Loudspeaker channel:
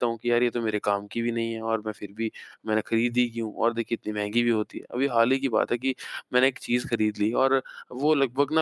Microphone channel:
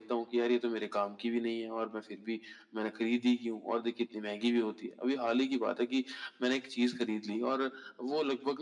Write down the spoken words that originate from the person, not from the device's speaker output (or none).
none